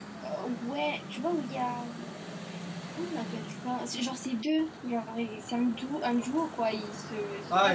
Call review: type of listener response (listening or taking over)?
taking over